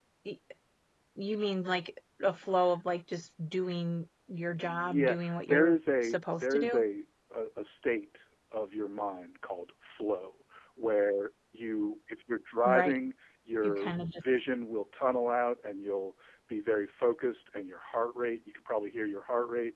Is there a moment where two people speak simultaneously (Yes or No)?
Yes